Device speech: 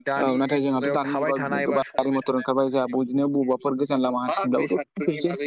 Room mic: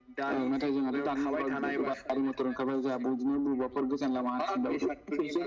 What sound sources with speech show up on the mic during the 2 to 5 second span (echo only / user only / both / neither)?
echo only